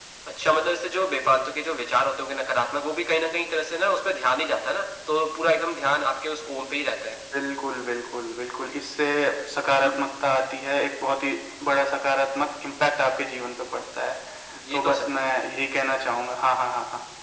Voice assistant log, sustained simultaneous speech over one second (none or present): none